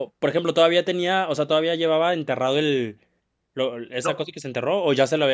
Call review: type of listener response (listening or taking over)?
listening